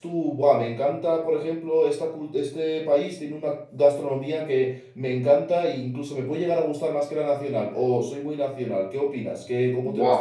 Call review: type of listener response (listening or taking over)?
taking over